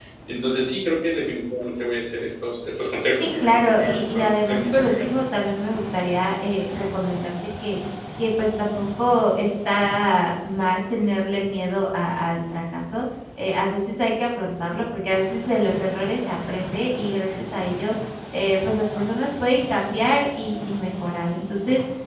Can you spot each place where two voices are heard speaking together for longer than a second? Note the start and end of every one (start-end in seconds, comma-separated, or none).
3.2-5.2